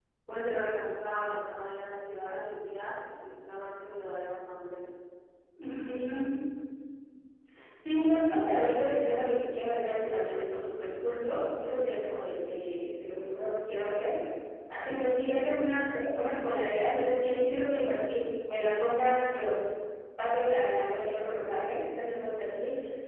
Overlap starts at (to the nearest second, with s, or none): none